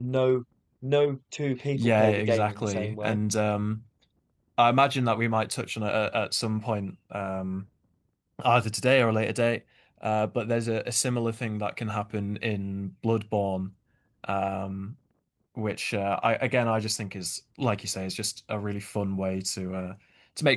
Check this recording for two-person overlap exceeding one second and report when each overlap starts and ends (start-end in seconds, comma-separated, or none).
1.7-3.2